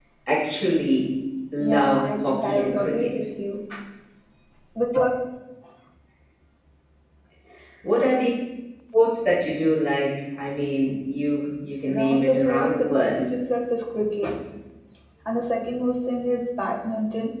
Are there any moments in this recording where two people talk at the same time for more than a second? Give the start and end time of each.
1.6-3.1, 11.9-13.3

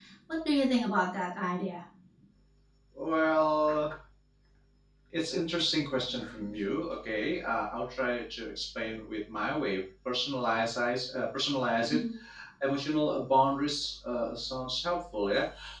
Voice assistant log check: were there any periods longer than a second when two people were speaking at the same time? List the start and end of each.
none

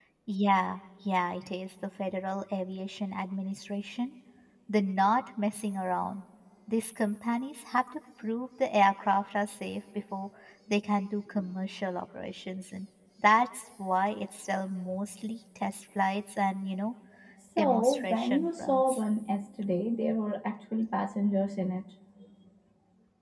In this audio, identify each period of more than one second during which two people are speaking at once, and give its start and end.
17.6-19.0

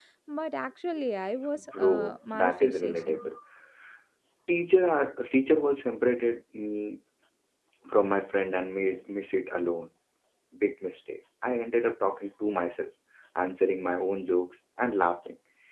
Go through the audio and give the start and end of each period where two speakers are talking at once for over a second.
1.6-3.3

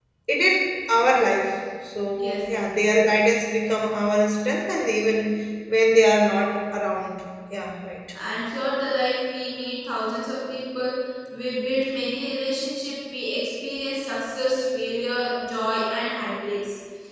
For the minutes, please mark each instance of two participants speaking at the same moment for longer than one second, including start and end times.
none

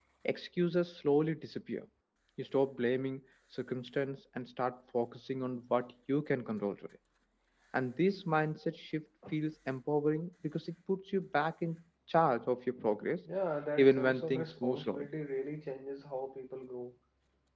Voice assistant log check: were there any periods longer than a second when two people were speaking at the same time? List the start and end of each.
13.8-15.1

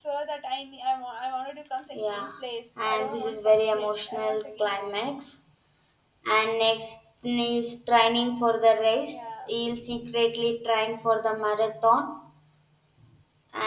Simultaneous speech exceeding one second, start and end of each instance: 2.8-5.2

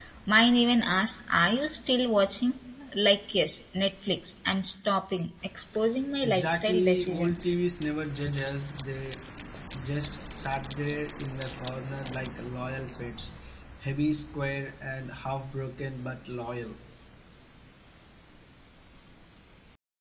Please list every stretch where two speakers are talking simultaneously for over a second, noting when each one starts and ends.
6.2-7.6

